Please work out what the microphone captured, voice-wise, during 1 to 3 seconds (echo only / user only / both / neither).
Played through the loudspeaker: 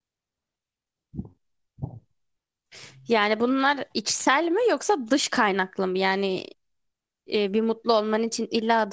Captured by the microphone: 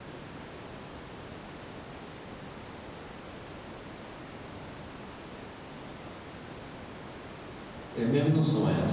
neither